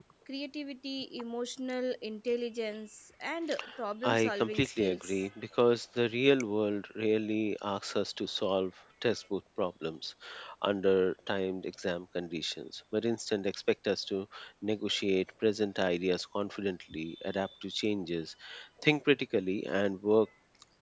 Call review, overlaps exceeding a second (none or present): present